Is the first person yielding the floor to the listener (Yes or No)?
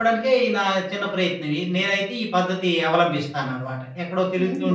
Yes